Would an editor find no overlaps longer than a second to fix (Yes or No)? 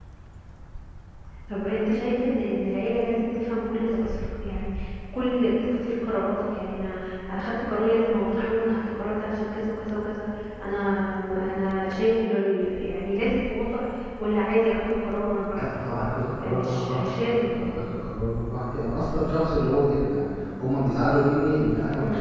No